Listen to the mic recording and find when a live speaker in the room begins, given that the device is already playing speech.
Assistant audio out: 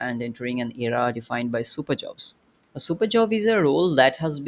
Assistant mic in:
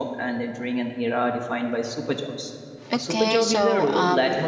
3 s

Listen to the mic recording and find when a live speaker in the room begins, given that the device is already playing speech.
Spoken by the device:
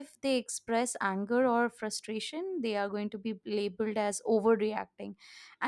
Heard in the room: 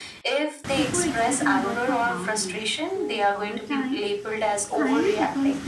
1 s

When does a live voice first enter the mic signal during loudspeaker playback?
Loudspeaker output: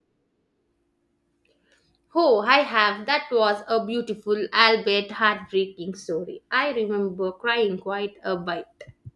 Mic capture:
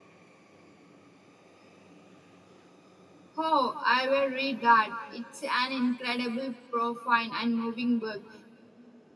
3 s

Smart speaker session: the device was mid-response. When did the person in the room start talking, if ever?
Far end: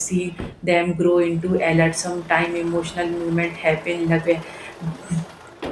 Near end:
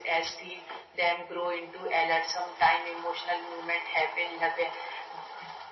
none

